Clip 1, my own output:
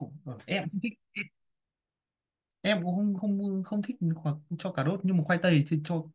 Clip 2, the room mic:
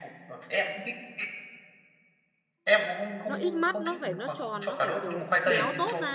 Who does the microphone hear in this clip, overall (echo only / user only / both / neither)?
both